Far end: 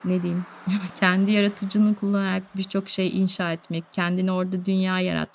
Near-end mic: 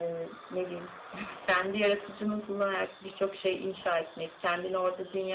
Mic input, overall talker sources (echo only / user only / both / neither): echo only